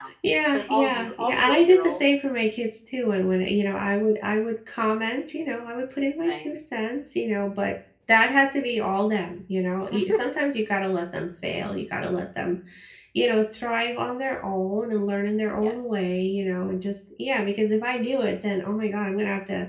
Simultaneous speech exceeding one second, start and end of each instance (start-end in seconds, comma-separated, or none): 0.5-2.0